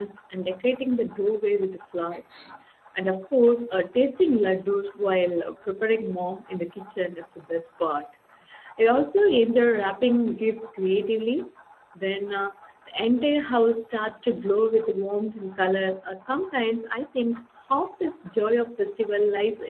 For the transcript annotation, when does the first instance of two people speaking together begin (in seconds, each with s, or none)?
none